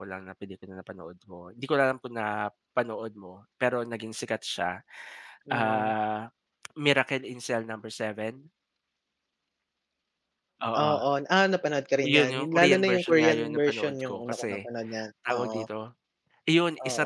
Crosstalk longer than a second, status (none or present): present